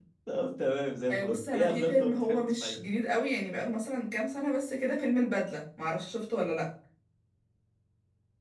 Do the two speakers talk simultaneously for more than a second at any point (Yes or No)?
Yes